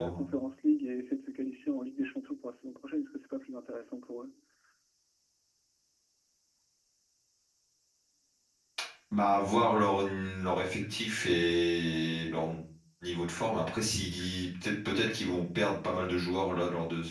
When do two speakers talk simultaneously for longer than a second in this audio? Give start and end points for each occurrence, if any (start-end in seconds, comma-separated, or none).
none